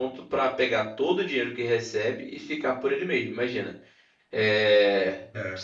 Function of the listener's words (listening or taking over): listening